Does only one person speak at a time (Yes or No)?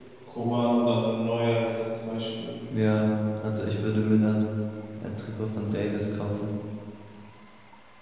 Yes